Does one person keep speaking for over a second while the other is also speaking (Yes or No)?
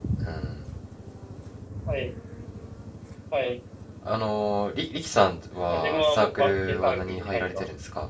Yes